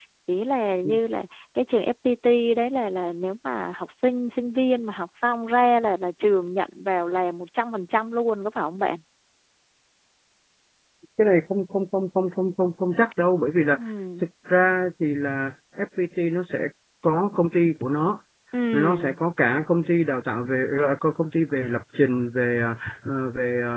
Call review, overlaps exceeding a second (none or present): none